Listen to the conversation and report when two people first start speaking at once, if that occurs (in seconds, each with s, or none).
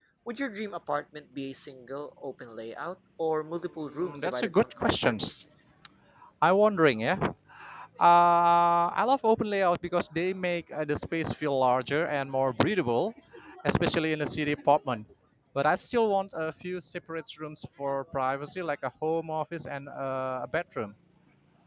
3.9 s